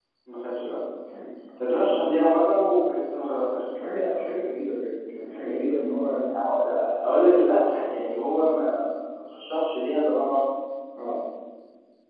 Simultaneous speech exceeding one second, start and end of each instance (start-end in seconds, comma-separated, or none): none